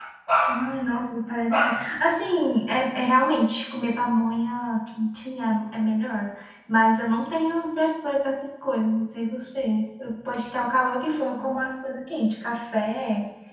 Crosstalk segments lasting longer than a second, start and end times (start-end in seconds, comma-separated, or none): none